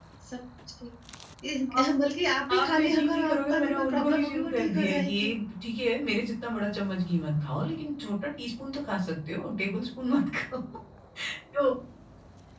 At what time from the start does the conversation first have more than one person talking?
2.5 s

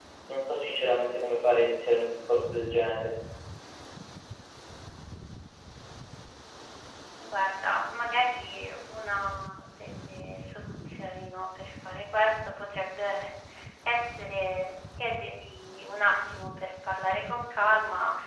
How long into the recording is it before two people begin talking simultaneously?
none

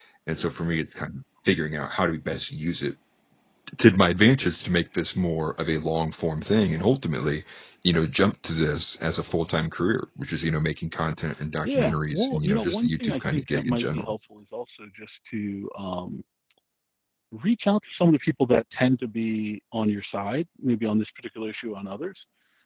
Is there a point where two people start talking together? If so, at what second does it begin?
11.6 s

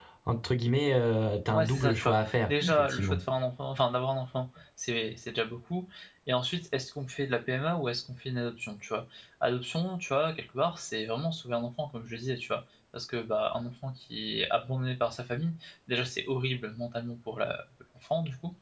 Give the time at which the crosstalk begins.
1.5 s

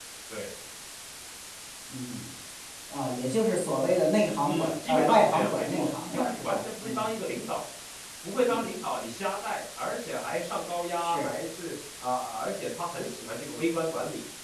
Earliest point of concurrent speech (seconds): 4.4 s

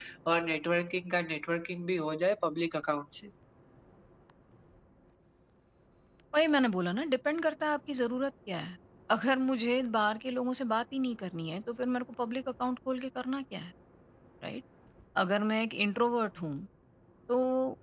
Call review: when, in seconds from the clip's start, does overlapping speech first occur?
none

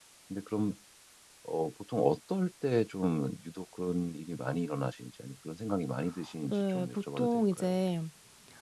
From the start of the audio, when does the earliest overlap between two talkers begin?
6.5 s

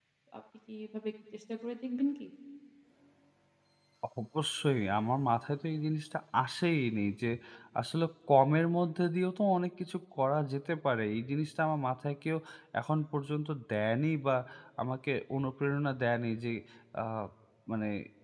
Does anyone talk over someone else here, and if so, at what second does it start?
none

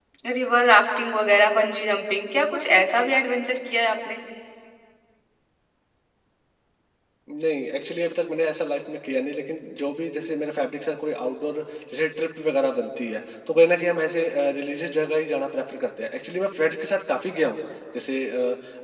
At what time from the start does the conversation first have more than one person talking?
none

